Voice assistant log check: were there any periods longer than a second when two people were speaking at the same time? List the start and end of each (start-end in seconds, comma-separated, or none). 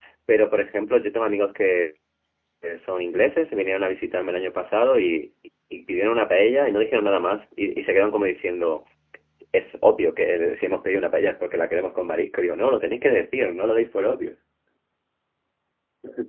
none